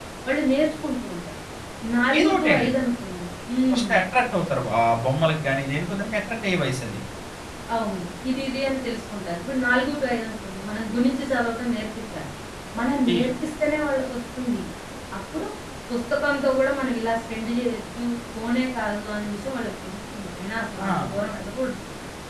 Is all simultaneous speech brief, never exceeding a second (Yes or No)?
Yes